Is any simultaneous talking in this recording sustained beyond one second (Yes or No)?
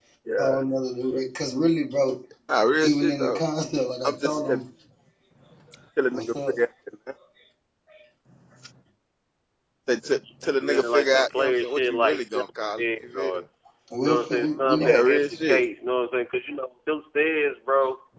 Yes